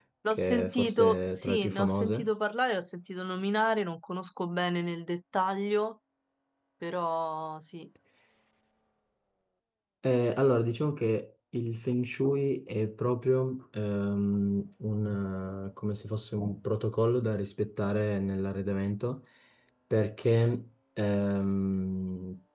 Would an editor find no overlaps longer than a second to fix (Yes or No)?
No